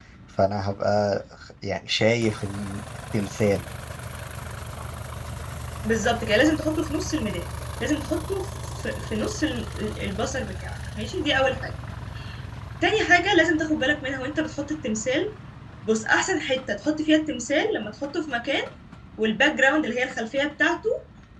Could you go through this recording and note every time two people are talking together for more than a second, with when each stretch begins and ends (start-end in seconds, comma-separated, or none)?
none